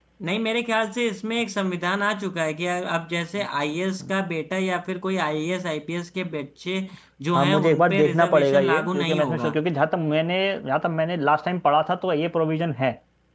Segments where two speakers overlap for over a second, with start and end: 7.3-9.5

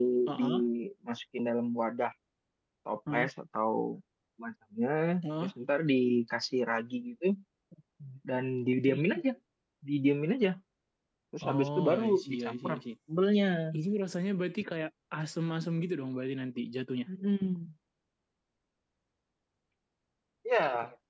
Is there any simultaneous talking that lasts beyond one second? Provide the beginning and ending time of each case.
11.4-12.8

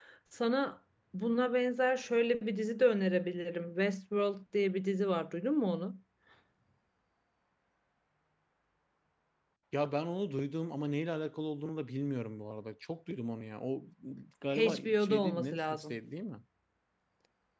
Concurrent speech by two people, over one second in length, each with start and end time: 14.5-15.9

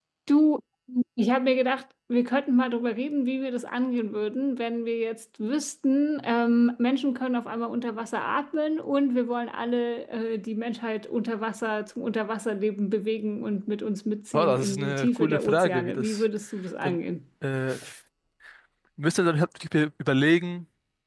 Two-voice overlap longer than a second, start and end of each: 14.3-16.2

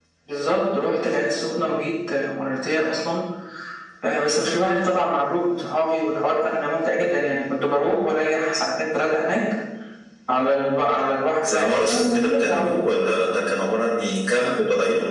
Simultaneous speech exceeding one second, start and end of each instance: 11.4-12.9

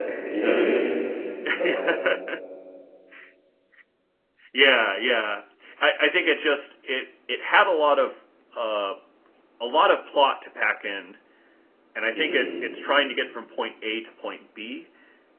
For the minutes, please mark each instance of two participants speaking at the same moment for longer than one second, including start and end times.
none

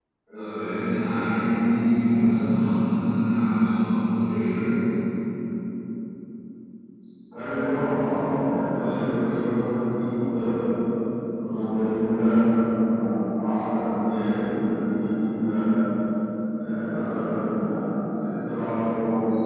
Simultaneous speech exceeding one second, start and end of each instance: none

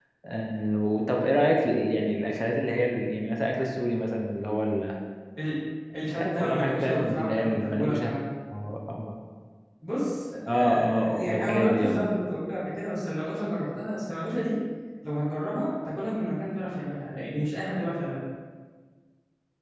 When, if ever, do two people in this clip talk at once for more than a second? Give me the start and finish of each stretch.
6.1-8.1, 10.5-12.0

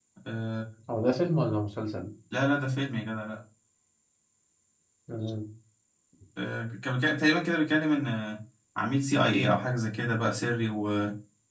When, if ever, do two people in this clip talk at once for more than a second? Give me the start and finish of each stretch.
none

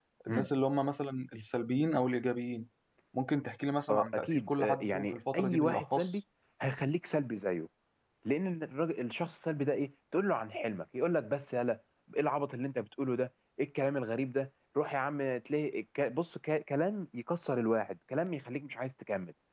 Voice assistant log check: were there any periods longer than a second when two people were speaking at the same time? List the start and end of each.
3.9-6.2

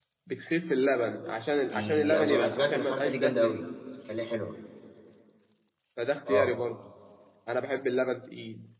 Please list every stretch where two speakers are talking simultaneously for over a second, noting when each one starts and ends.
1.6-3.6

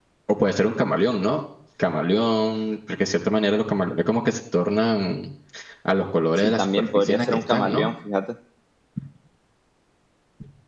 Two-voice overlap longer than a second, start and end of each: 6.4-7.9

